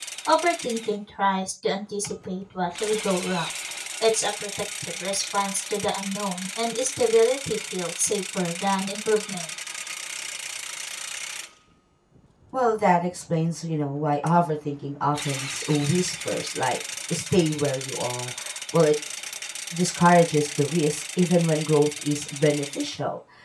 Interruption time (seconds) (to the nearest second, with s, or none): none